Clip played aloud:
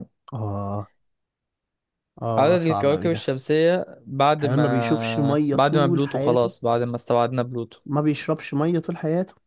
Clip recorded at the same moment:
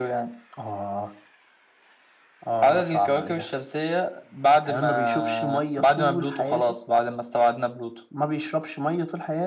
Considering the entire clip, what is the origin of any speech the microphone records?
echo only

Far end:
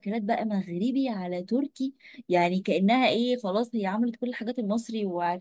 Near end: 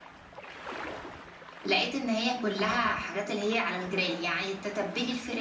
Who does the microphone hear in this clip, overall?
user only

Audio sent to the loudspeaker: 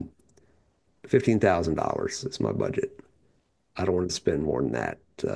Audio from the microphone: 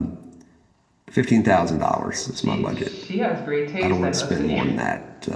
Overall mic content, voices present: both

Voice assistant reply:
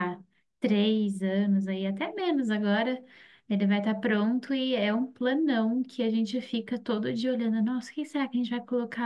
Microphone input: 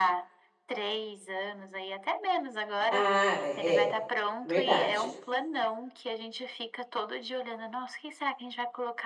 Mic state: both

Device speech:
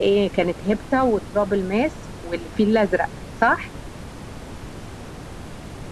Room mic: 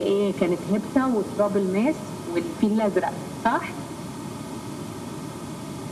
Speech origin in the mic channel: echo only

